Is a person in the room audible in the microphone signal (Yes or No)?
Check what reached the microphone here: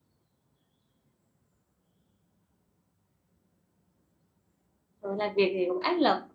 Yes